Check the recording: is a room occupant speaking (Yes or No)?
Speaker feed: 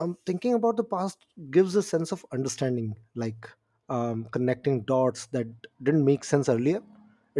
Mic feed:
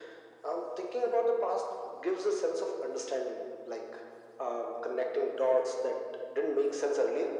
No